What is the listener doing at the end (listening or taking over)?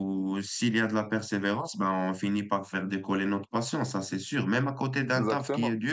listening